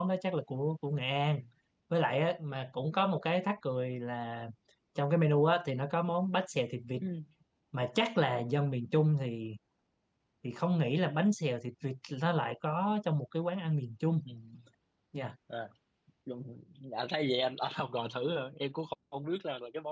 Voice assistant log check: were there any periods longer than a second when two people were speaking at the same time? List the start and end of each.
none

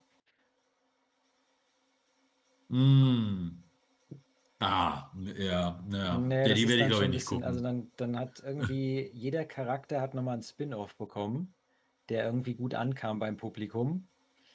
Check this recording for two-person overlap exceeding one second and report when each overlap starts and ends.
6.1-7.6

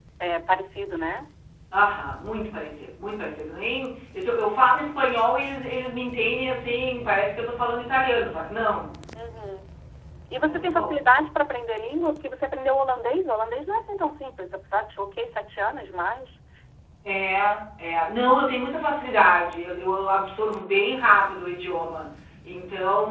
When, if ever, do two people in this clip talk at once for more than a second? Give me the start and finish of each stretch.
none

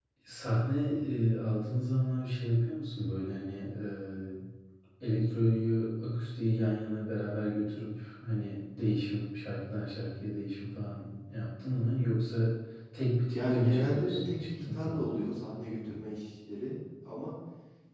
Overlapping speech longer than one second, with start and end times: 13.3-15.1

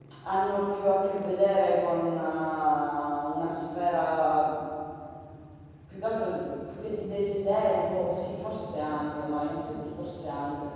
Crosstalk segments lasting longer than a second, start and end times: none

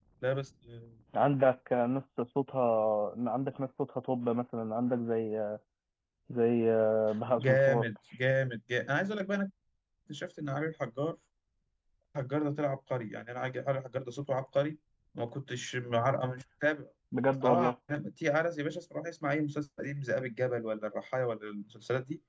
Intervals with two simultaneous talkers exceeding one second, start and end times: none

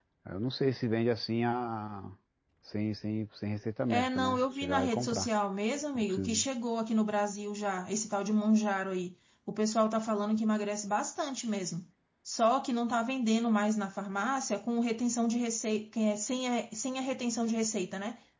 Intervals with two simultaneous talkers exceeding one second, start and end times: 3.9-5.3

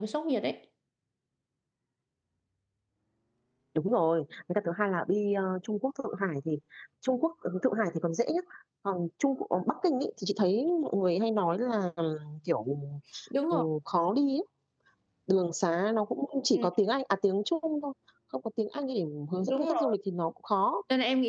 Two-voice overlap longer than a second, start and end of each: none

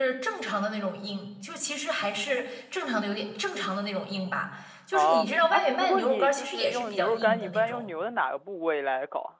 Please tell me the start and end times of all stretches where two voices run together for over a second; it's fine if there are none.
4.9-7.9

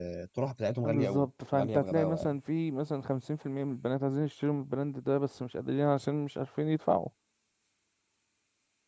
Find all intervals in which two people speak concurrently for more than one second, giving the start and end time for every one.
0.8-2.4

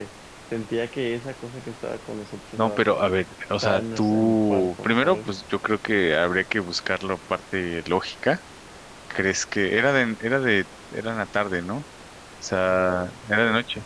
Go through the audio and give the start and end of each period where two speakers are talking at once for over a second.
3.6-5.3

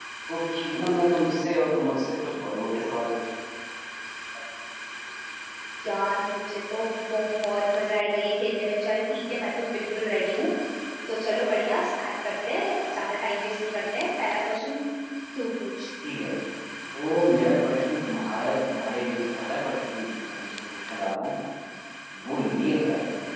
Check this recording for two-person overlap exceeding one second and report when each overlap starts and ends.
none

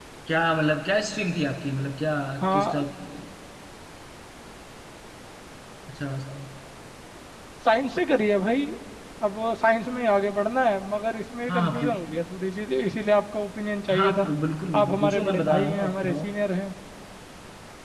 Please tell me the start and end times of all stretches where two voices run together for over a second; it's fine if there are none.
14.8-16.3

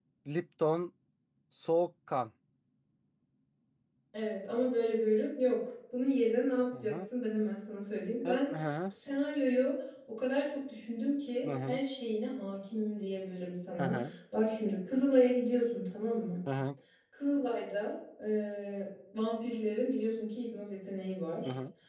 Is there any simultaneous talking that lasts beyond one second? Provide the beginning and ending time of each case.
none

